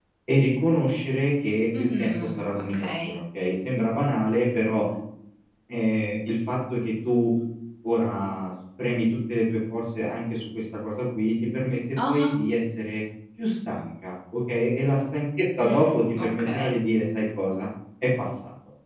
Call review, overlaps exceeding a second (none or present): present